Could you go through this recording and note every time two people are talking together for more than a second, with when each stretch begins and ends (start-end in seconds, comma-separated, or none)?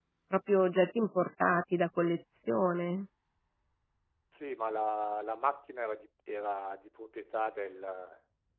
none